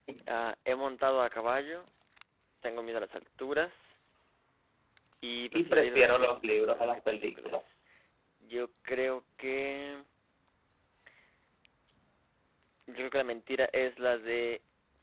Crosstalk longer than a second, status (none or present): present